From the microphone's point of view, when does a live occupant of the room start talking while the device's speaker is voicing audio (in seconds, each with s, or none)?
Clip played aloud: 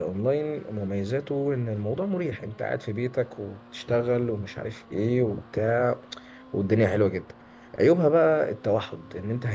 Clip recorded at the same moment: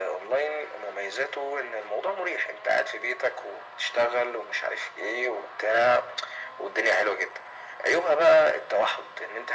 none